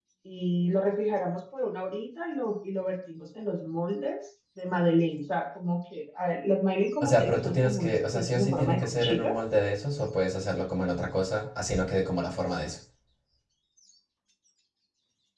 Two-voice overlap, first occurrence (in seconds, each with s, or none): 7.0 s